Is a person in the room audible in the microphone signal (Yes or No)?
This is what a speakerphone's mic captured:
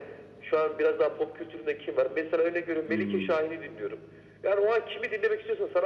Yes